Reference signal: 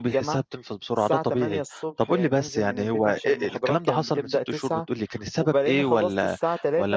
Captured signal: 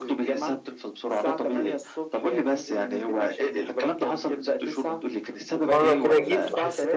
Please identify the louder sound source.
user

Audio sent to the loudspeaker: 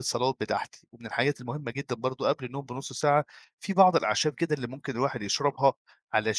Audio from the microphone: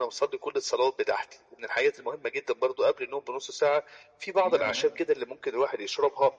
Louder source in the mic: echo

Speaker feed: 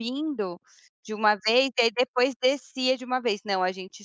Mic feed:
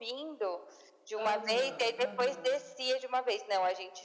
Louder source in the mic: echo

